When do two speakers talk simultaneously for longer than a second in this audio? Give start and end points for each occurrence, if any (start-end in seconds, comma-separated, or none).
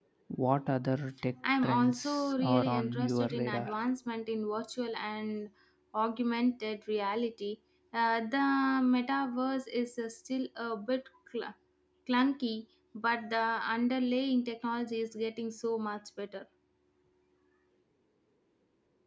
1.6-3.7